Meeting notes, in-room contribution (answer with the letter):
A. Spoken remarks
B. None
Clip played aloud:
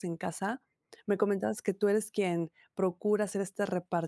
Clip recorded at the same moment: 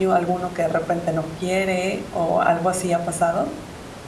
A